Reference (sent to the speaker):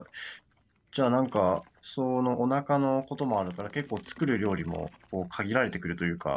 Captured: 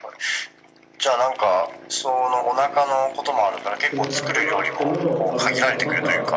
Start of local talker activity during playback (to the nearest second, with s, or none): 4 s